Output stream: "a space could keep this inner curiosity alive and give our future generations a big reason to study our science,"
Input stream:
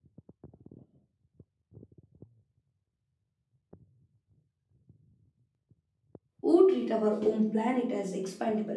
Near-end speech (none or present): present